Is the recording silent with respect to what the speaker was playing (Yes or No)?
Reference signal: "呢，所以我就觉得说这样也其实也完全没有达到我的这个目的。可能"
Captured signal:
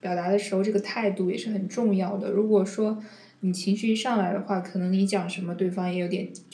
Yes